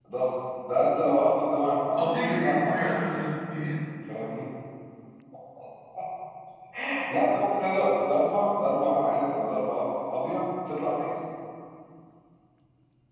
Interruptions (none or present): present